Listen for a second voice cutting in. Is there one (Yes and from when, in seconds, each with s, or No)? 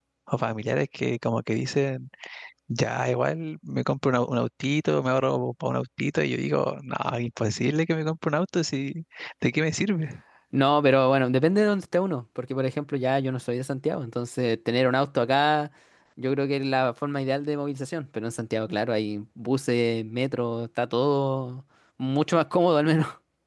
No